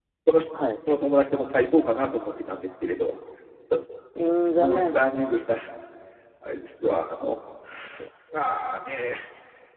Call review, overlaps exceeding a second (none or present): none